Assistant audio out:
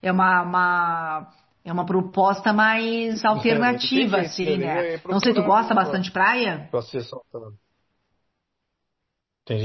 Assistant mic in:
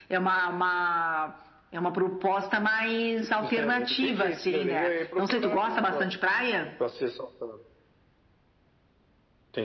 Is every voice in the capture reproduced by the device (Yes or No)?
Yes